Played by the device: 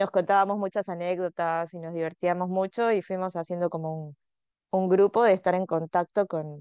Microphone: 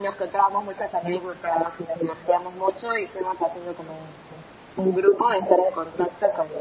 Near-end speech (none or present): none